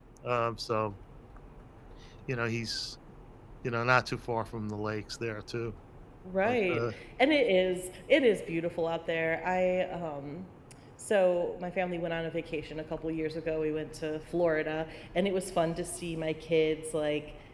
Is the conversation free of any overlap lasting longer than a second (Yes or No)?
Yes